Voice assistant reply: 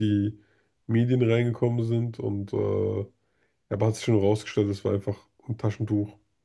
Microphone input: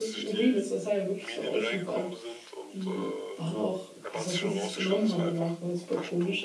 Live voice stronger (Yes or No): Yes